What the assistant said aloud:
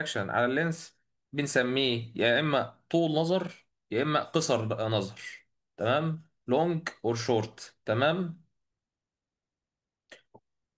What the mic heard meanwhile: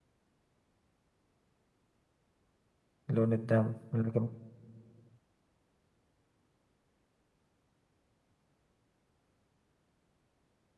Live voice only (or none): لون الدم لكن